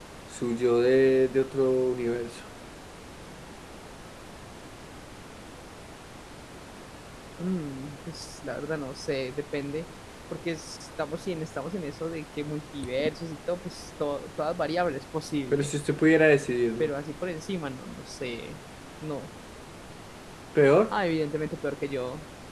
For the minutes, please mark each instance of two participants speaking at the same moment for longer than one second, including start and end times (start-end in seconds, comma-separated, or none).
none